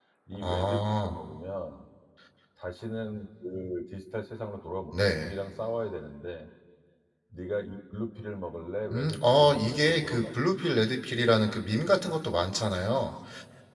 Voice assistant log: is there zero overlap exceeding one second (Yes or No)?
No